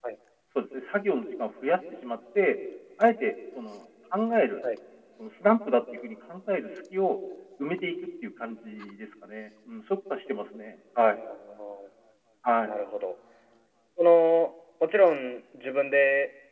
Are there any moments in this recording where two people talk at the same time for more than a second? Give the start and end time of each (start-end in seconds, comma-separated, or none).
none